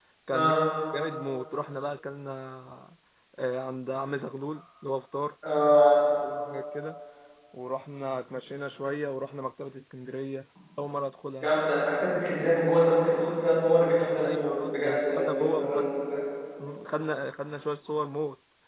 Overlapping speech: Yes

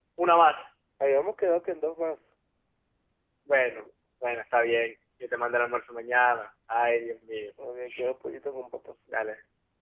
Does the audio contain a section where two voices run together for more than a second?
No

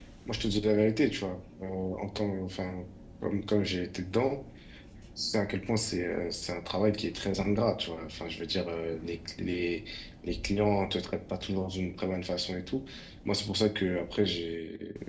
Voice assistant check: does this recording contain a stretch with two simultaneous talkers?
No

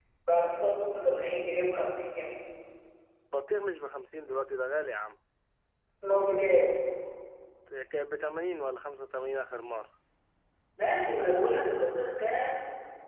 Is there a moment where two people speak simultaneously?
No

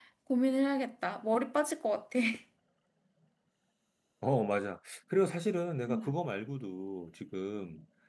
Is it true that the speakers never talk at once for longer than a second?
Yes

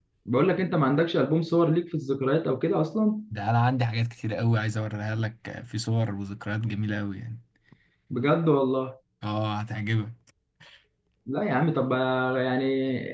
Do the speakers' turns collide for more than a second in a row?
No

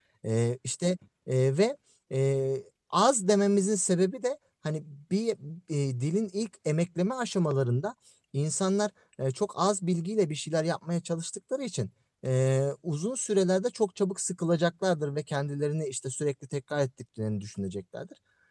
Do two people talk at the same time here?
No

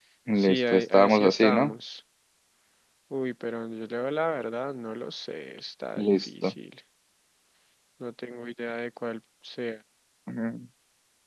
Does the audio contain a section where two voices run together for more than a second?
Yes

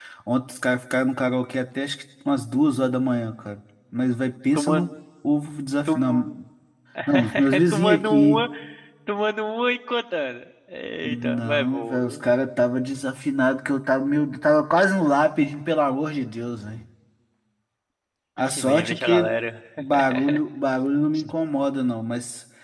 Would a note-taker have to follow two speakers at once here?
Yes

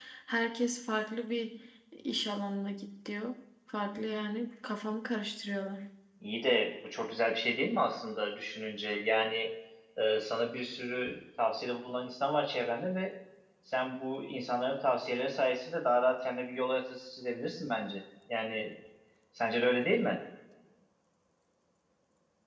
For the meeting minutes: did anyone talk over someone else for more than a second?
No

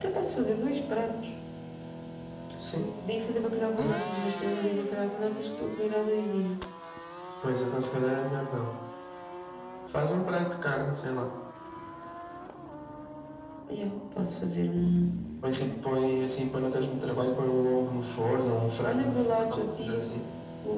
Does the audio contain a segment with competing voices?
Yes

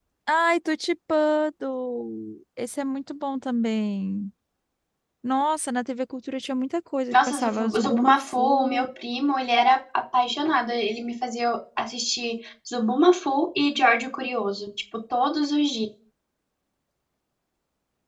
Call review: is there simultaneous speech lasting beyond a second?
Yes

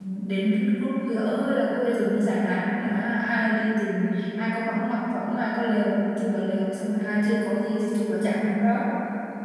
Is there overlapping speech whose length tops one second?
No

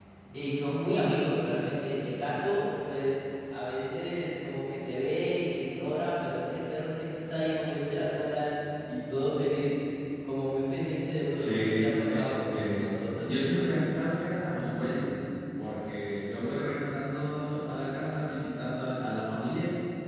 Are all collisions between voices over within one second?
No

